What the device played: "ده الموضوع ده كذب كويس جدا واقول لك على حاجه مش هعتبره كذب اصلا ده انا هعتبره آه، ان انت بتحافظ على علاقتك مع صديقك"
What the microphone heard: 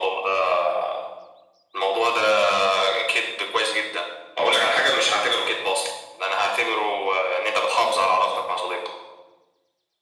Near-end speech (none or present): none